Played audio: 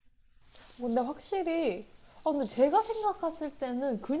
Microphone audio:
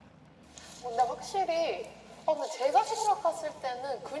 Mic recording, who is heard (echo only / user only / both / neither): echo only